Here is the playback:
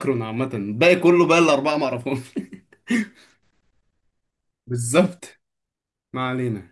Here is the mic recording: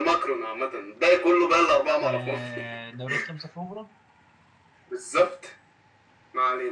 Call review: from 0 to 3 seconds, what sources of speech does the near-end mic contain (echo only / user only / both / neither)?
both